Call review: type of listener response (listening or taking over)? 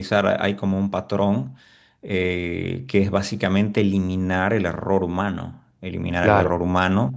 listening